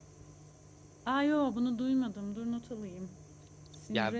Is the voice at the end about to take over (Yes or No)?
Yes